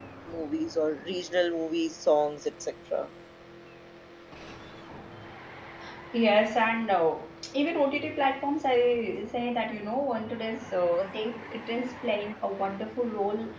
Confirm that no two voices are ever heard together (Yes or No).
Yes